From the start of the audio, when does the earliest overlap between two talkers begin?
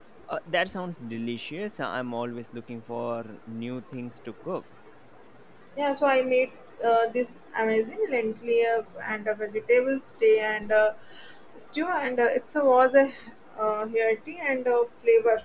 none

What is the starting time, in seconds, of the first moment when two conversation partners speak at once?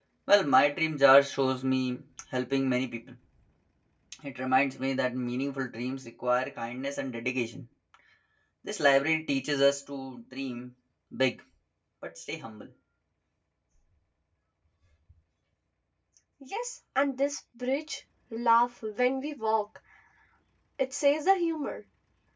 none

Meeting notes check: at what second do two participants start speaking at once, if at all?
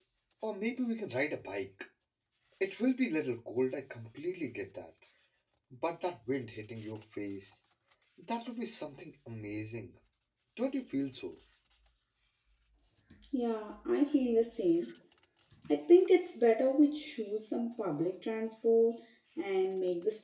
none

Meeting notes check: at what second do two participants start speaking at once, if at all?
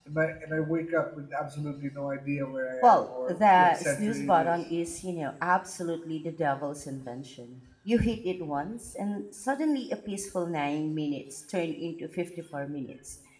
3 s

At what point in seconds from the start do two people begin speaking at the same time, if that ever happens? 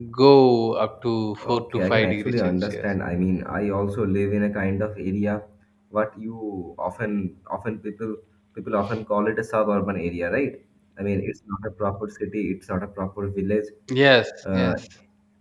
1 s

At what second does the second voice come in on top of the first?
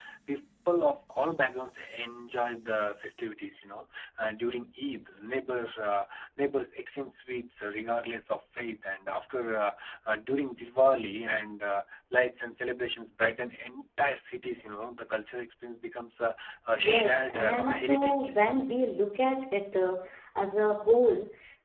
17 s

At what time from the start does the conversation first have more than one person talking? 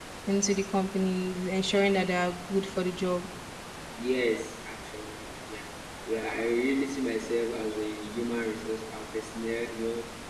none

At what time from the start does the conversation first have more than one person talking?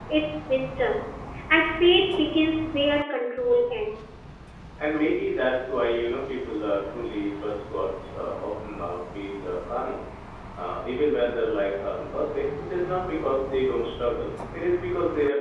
none

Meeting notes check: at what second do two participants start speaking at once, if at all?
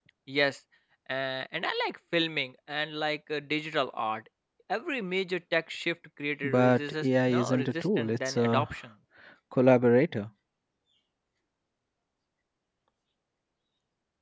6 s

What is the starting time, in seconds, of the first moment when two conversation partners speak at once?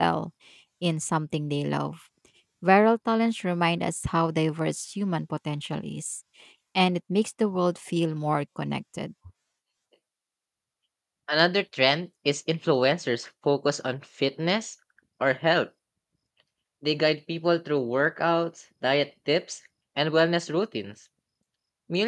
none

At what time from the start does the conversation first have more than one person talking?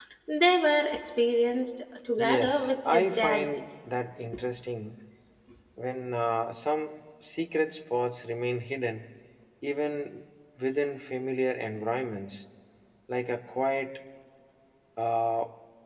2 s

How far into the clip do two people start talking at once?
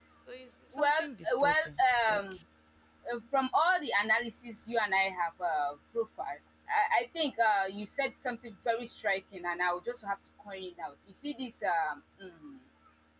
1 s

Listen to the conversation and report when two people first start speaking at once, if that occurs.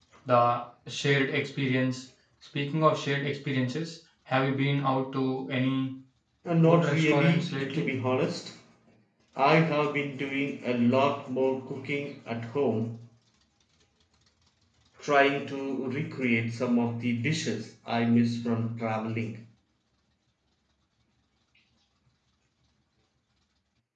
7 s

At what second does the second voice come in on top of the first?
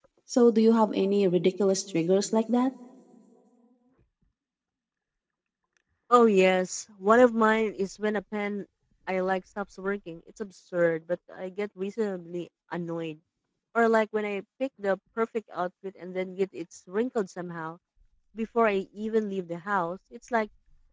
none

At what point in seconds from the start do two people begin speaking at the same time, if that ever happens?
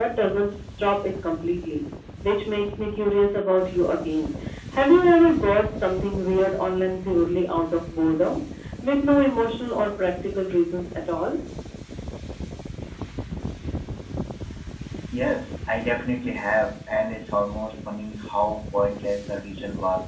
none

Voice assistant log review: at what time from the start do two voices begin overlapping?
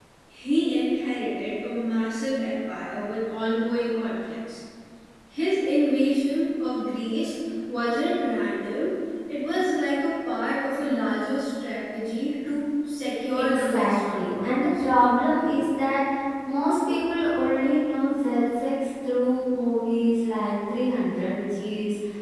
13 s

